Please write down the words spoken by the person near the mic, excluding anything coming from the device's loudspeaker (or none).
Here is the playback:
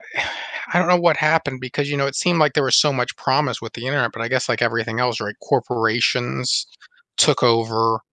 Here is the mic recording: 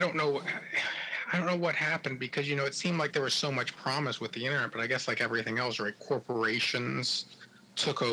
none